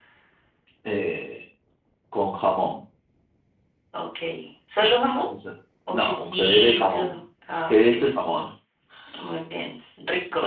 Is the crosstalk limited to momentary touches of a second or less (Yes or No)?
No